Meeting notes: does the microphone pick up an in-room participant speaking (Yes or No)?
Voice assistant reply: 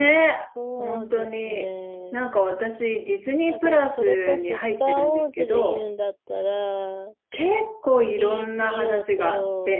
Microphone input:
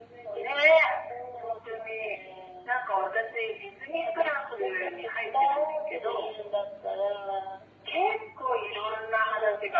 No